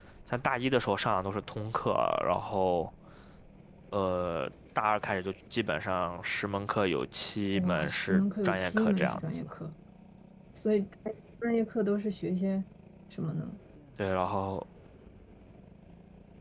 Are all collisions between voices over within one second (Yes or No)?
No